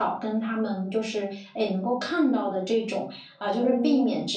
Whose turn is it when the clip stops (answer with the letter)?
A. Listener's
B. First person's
B